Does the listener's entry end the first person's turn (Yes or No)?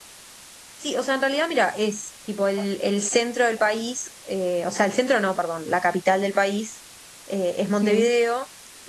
No